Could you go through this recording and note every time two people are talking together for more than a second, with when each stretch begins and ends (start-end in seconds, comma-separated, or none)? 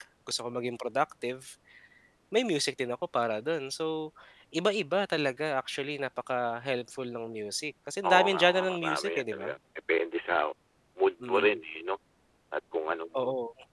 8.1-9.5